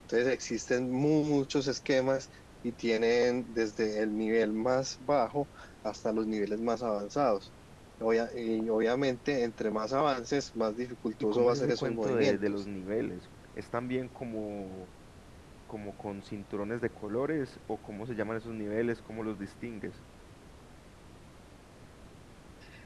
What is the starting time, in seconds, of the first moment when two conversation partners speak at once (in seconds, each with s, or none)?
11.2 s